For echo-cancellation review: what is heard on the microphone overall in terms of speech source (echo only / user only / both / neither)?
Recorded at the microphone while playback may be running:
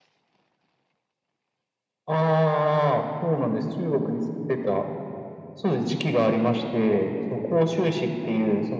echo only